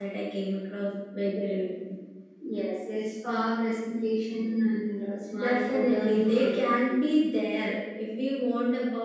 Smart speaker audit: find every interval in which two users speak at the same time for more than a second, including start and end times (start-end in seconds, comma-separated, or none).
5.4-7.1